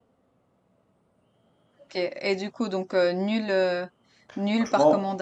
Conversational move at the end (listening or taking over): taking over